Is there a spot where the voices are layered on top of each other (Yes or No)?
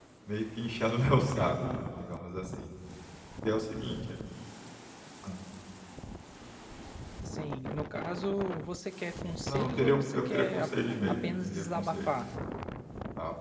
Yes